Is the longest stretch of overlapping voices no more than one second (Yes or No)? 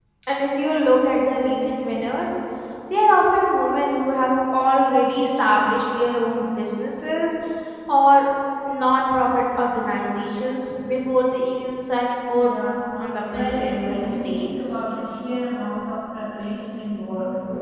No